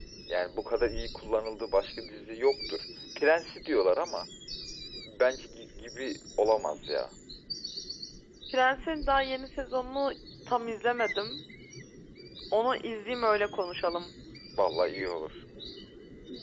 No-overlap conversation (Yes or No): Yes